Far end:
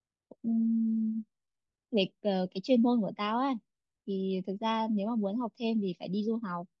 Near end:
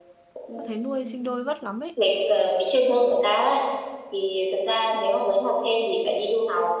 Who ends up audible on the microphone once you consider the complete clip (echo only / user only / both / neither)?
both